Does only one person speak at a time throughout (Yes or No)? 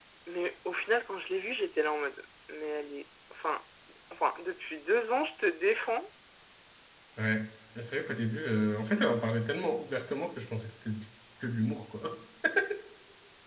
Yes